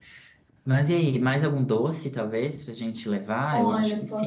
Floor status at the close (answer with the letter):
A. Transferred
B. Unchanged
A